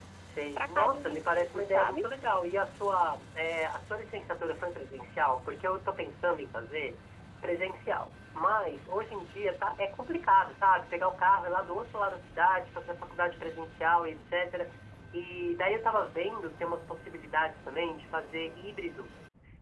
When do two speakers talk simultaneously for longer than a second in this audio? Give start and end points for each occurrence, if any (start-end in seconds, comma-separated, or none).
0.6-2.0